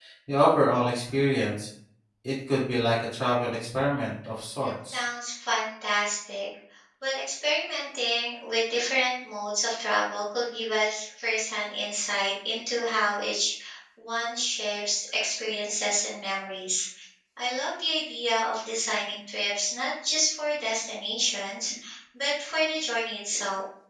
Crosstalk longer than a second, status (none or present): none